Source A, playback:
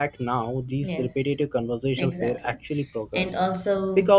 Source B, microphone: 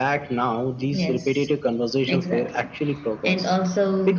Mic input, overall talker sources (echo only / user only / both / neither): echo only